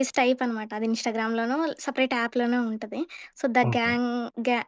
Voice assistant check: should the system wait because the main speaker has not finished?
Yes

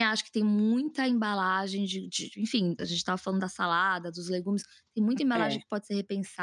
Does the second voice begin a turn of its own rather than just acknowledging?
No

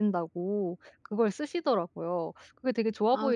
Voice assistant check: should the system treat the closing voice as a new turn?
Yes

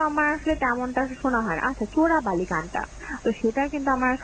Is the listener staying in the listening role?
Yes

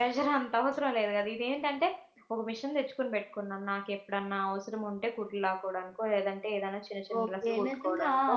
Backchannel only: No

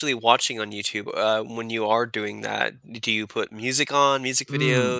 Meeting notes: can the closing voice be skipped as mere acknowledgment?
No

